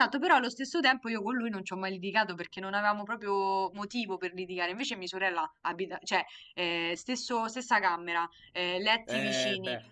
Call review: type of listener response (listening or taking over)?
taking over